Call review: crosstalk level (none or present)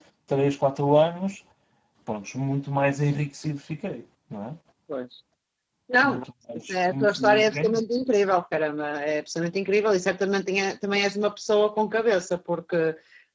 present